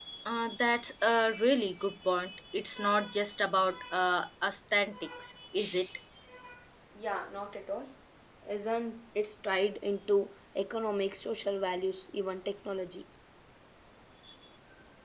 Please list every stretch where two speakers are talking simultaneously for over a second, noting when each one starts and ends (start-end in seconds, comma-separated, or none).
none